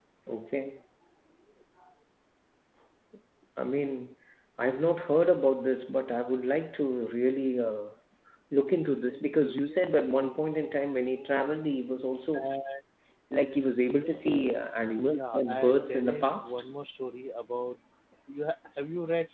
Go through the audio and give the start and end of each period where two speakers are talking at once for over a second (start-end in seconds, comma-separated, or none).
15.1-16.6